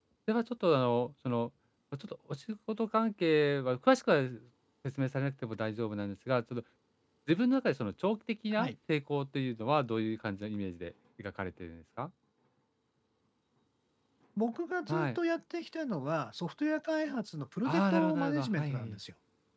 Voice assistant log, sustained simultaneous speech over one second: present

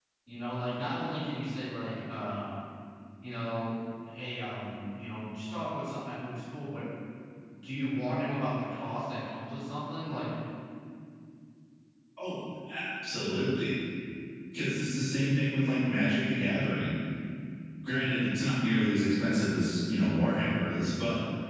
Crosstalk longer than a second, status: none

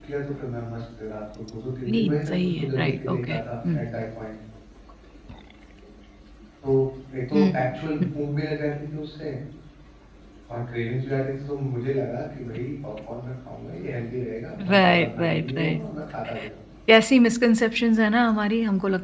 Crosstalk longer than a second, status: present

